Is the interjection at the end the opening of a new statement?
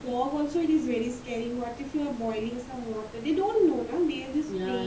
Yes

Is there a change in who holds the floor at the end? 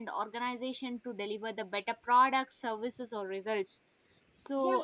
Yes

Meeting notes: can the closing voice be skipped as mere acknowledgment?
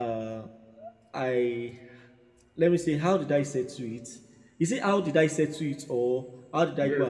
No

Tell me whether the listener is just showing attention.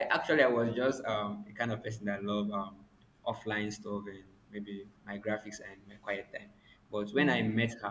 Yes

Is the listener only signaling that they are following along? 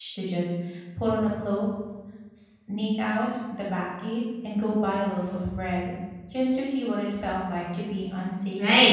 No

